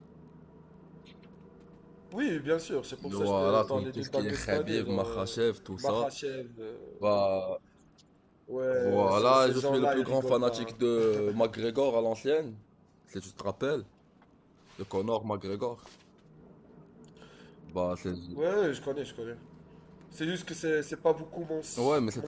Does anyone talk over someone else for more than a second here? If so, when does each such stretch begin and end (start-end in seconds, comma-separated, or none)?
3.1-5.4, 8.7-10.8